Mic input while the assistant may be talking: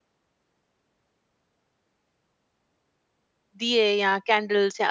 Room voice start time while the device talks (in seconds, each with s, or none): 3.6 s